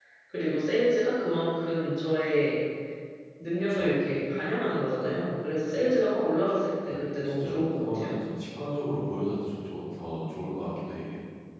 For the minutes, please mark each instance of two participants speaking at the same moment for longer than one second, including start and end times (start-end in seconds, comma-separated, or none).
6.9-8.1